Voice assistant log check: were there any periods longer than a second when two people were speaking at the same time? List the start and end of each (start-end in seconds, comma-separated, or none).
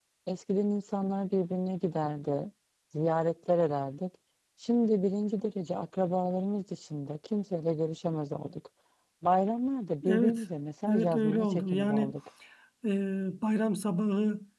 10.9-12.1